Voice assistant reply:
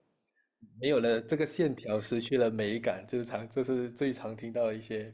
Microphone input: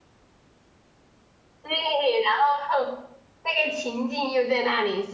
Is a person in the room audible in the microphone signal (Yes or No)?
Yes